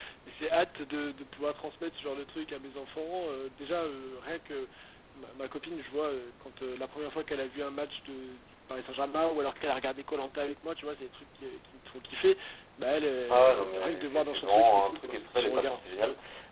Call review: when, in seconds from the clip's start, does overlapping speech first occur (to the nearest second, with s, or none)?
13 s